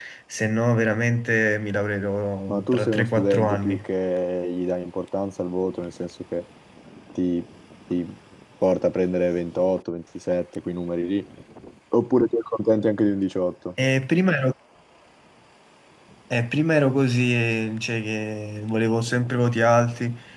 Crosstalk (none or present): present